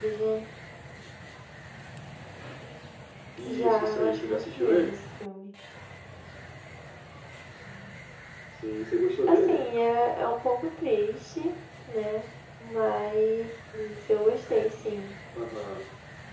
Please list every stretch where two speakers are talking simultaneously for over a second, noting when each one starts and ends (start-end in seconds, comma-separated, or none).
3.5-4.9